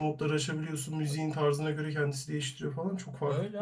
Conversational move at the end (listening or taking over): taking over